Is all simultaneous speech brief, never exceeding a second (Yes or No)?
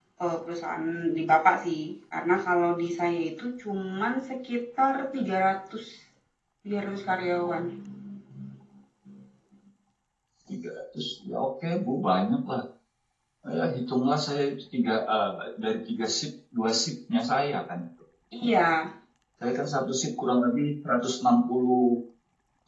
Yes